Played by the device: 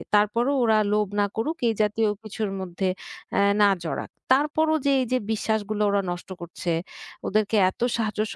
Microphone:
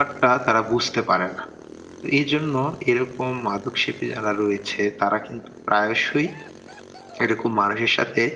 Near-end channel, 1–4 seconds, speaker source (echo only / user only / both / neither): user only